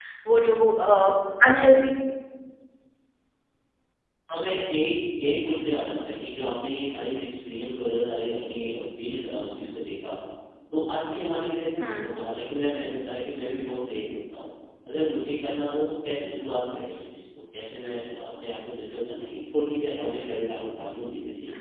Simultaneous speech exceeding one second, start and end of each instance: none

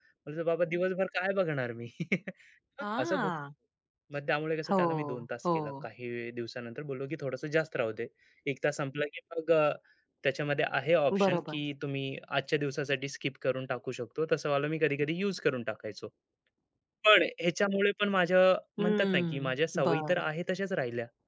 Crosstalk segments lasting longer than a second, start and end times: 18.8-20.3

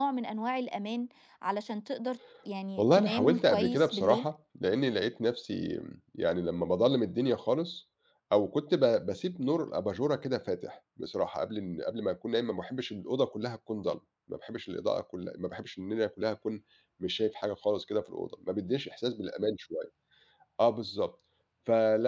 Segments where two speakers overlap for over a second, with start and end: 2.8-4.3

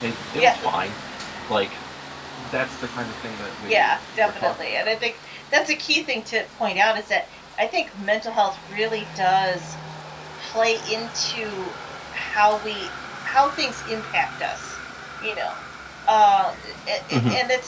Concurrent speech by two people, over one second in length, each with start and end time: 3.7-4.9

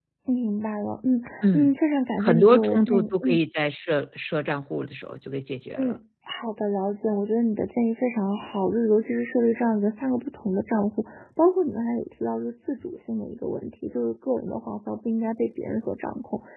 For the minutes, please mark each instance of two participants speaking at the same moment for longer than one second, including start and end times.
2.2-3.4

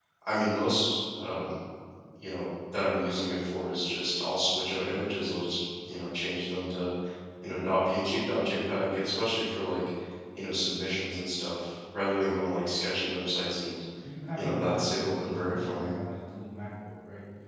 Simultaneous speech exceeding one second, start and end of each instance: 14.4-15.9

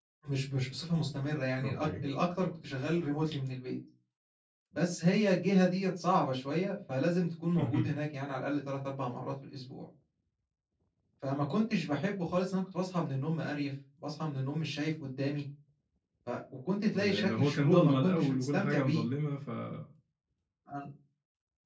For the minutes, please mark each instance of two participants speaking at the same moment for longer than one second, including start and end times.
16.9-19.1

